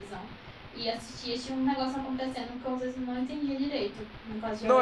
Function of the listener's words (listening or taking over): taking over